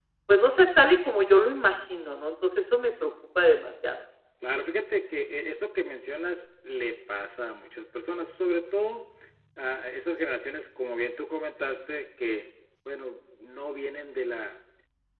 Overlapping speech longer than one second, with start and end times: none

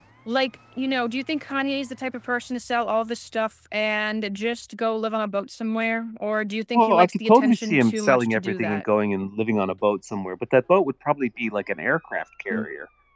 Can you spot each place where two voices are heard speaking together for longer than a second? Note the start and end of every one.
6.7-8.8

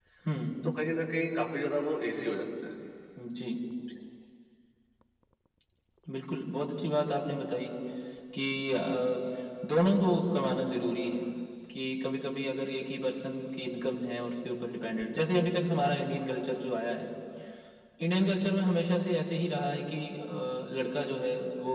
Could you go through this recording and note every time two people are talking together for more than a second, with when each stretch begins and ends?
none

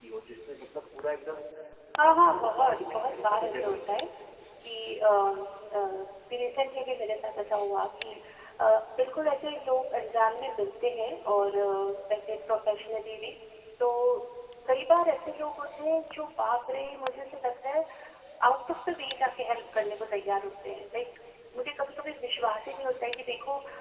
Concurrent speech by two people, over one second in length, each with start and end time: 2.1-3.9

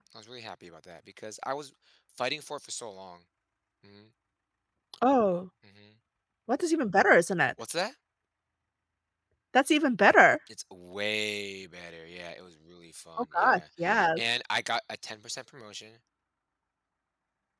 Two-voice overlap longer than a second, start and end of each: none

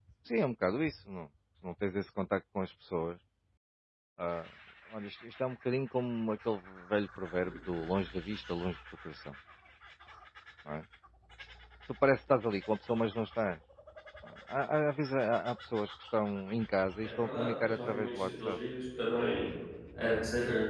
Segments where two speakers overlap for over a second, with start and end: 17.0-18.6

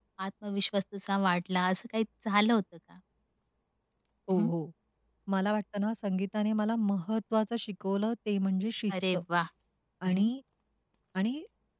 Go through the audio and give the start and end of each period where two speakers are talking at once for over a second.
none

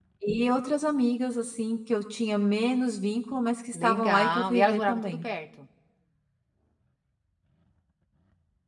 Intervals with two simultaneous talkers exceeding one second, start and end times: 3.7-5.2

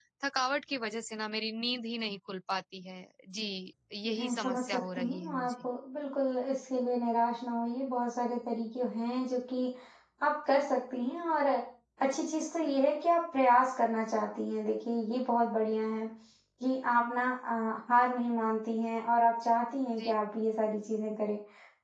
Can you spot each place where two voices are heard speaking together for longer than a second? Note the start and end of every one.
4.1-5.5

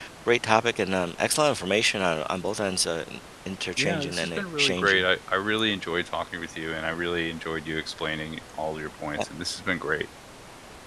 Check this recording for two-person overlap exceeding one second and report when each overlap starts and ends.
3.8-5.0

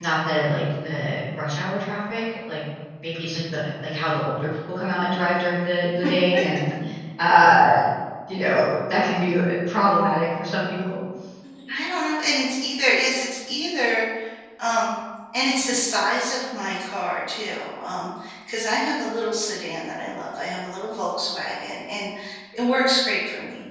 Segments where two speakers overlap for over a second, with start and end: none

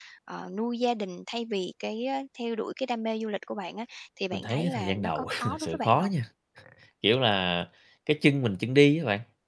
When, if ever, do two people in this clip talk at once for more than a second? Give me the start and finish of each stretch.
4.3-6.1

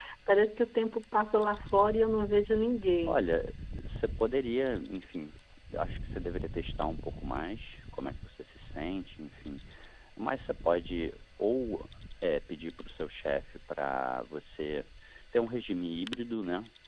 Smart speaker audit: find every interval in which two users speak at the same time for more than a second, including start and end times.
none

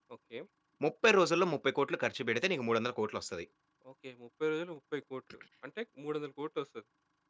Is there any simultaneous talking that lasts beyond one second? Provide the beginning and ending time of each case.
none

